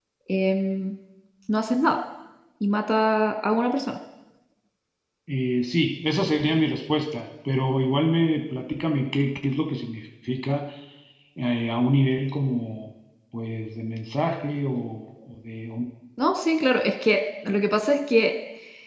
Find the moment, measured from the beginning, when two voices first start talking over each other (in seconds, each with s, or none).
none